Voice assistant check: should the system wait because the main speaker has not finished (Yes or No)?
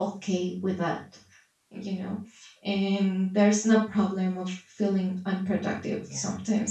Yes